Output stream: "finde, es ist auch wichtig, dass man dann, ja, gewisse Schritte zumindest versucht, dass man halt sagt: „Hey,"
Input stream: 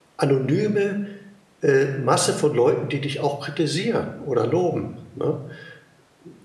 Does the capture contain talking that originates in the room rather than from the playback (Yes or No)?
Yes